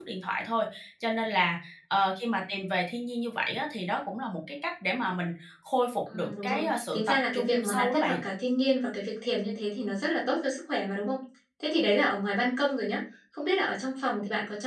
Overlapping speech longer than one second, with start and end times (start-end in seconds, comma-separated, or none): 6.1-8.2